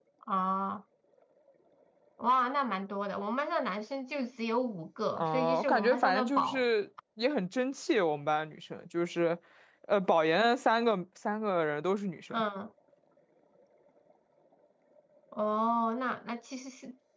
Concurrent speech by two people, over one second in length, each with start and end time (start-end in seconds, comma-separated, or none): 5.2-6.6